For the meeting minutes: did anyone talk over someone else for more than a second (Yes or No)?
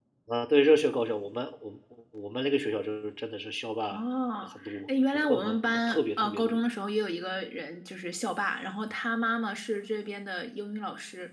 Yes